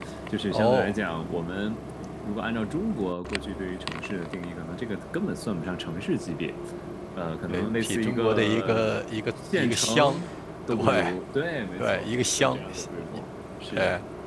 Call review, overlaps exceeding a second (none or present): present